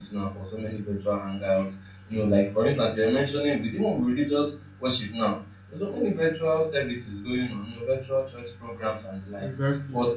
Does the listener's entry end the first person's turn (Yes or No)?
No